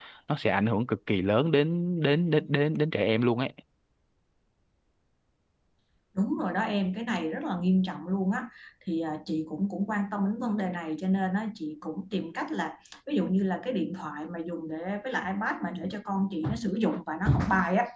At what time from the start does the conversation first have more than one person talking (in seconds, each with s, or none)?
none